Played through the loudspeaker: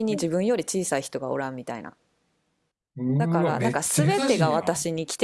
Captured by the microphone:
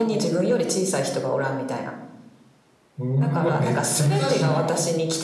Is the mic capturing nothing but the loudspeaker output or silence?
Yes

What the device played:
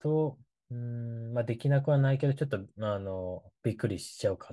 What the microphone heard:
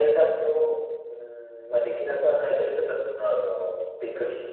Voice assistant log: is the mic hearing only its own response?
Yes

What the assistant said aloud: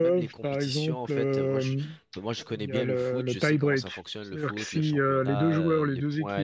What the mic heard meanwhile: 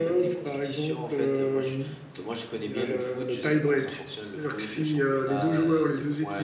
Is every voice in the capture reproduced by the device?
Yes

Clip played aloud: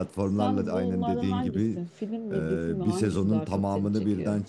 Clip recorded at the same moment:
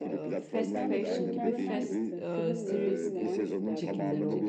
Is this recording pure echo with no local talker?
No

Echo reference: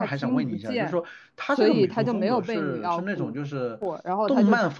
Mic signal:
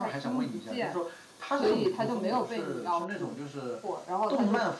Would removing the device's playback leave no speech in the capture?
Yes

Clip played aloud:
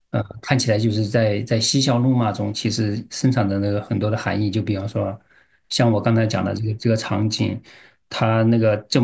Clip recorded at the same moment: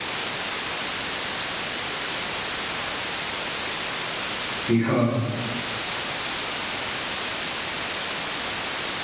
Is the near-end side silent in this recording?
No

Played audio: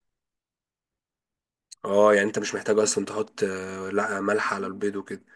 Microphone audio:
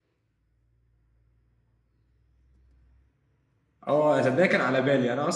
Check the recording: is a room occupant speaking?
Yes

